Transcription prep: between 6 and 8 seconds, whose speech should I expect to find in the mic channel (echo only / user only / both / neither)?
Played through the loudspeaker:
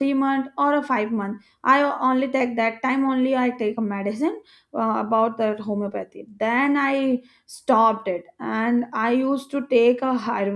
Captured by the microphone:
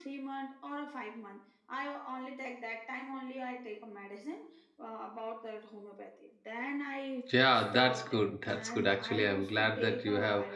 both